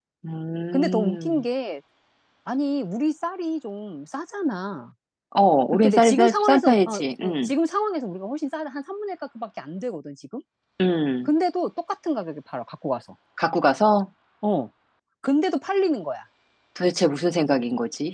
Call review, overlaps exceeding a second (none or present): present